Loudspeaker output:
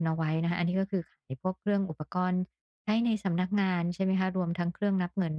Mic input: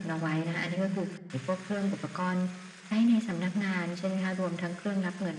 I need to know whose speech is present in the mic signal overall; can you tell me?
echo only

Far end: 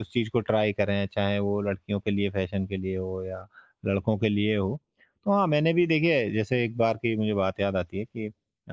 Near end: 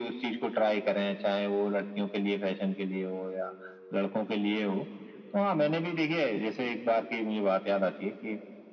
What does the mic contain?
echo only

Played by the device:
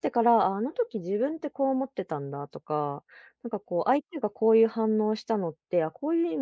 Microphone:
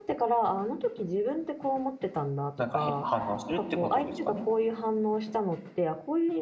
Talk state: both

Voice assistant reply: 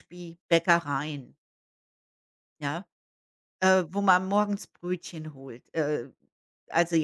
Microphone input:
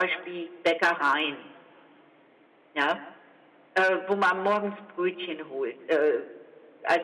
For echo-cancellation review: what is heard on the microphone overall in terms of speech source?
echo only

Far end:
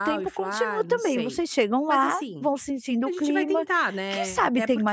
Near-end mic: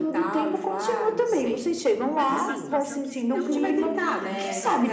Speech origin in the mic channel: both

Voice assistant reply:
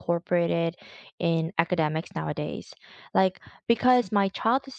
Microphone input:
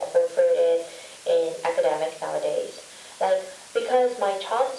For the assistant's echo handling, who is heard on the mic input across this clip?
echo only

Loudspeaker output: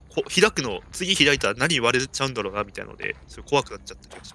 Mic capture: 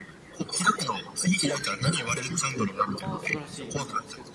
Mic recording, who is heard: both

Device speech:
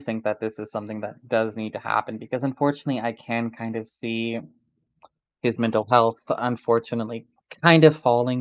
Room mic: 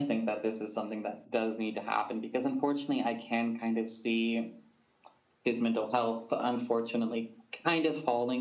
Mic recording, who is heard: echo only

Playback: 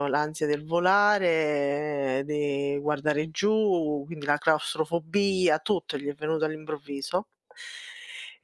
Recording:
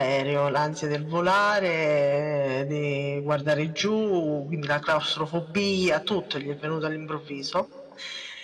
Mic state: echo only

